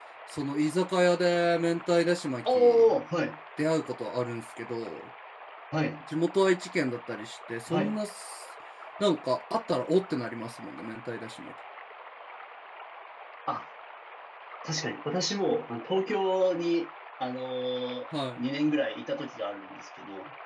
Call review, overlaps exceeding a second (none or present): none